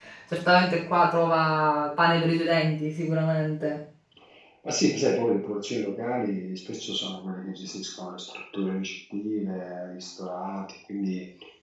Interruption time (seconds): none

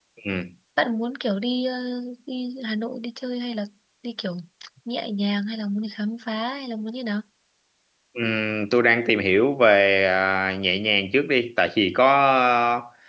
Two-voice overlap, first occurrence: none

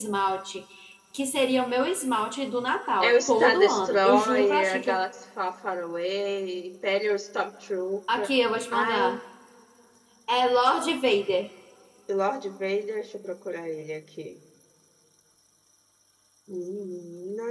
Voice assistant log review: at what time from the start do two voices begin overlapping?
3.0 s

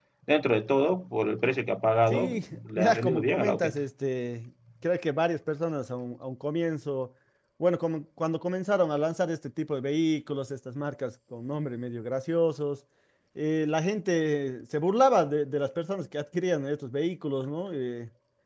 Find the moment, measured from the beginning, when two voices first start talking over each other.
2.1 s

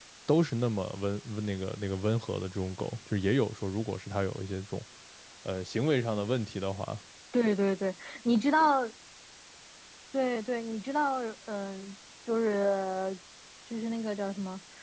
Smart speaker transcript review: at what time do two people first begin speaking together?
none

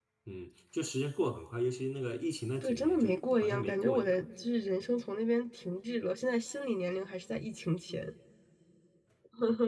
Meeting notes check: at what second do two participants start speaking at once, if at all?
2.6 s

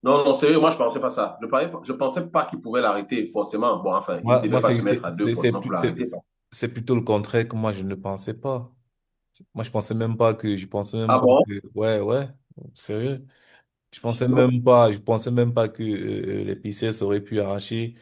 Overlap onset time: 4.2 s

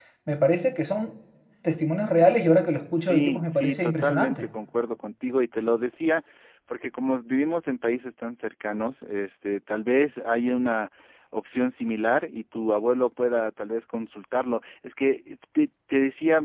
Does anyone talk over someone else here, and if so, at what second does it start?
3.0 s

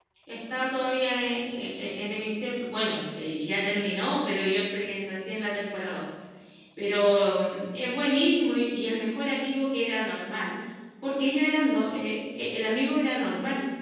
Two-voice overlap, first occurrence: none

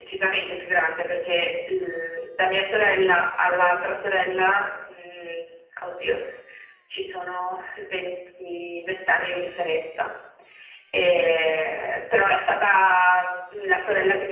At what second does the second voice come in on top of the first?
none

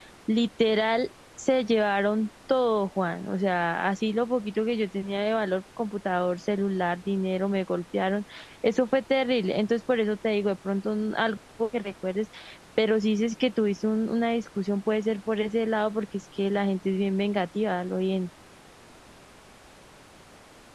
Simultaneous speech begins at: none

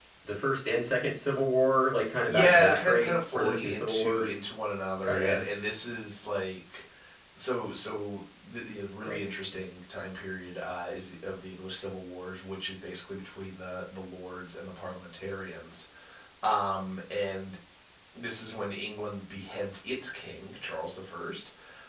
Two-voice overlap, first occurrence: 2.3 s

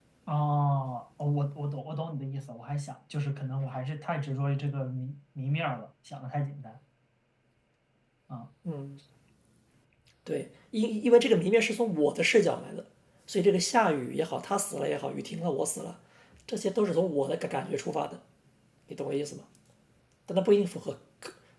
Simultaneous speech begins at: none

